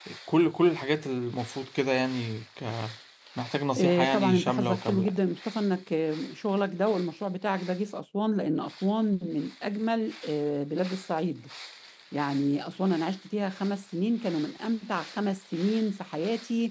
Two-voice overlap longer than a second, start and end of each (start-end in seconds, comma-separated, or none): 3.8-5.2